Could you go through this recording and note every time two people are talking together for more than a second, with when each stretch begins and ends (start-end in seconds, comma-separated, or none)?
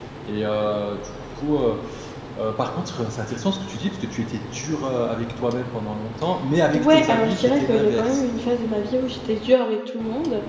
6.7-8.2